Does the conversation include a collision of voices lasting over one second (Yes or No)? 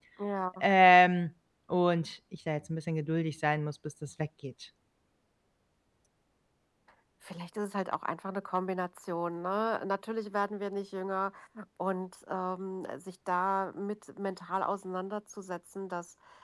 No